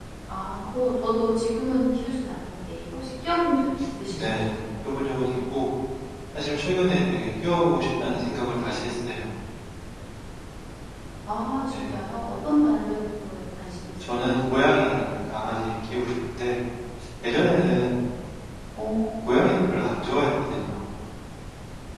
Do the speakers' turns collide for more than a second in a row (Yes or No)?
No